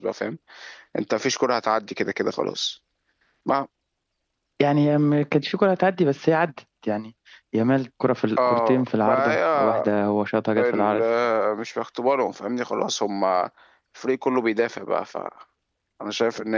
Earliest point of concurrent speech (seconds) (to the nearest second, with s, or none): 8 s